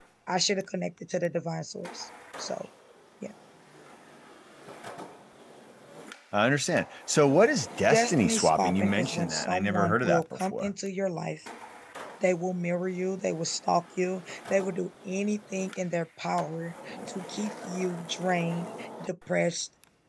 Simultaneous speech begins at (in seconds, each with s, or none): 7.8 s